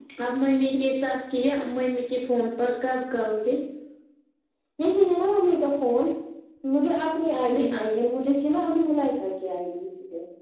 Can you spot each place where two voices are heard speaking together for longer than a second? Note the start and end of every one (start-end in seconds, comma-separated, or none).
none